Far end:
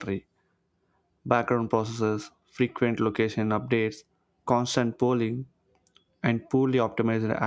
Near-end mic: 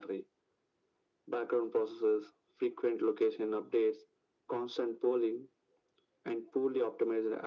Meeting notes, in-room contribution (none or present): none